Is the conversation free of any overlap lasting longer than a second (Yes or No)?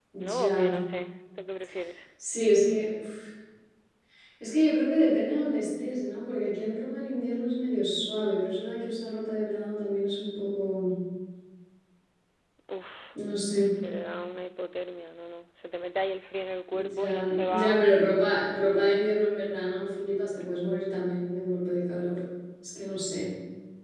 No